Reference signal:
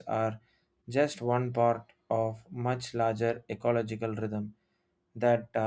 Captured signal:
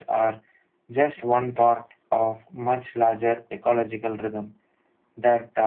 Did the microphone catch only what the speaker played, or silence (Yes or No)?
Yes